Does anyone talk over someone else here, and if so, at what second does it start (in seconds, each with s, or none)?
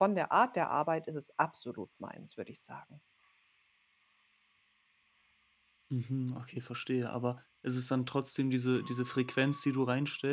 none